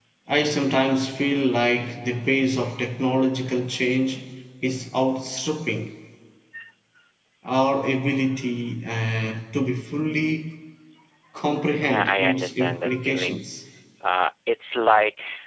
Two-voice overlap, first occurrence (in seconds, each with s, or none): 11.8 s